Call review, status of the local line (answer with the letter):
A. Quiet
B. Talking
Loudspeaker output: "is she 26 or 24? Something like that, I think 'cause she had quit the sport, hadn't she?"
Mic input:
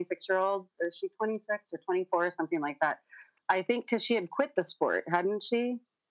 A